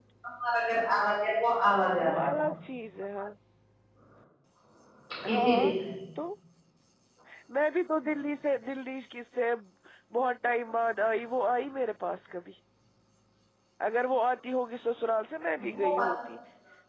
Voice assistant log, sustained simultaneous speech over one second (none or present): none